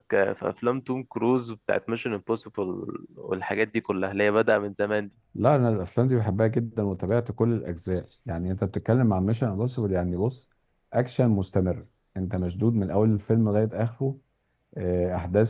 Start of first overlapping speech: none

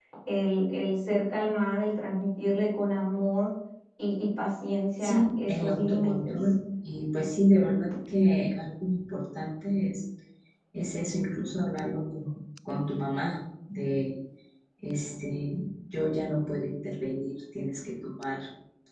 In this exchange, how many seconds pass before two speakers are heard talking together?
5.0 s

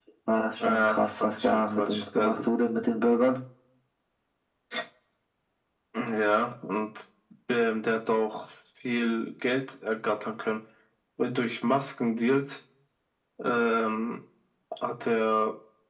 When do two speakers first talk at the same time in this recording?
0.6 s

